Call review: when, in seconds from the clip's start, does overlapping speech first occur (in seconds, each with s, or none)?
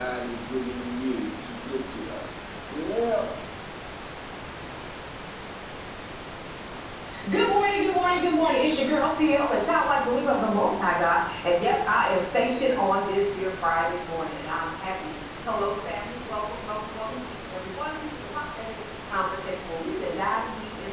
none